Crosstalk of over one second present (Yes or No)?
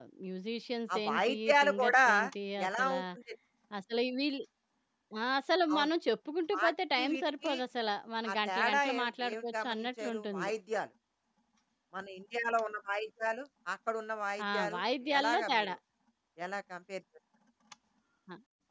Yes